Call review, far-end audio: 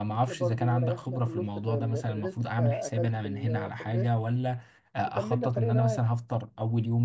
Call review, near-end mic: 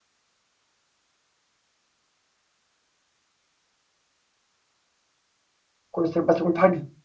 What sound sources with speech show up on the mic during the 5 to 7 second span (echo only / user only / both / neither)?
user only